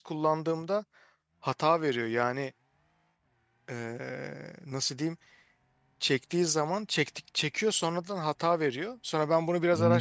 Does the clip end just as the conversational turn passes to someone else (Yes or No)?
Yes